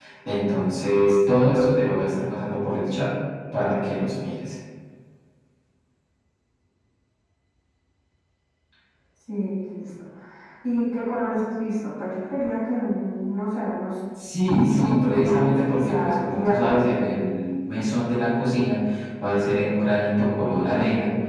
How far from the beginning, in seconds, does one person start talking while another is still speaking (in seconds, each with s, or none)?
14.4 s